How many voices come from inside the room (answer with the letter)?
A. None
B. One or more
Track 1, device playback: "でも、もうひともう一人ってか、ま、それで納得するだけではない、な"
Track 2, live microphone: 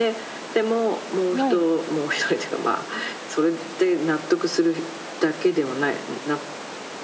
B